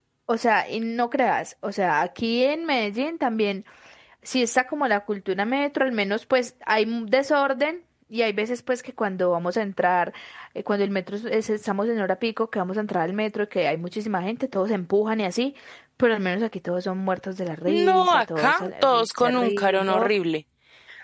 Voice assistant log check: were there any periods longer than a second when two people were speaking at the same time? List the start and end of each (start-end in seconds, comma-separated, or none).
17.7-20.1